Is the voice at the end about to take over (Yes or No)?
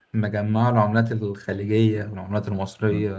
Yes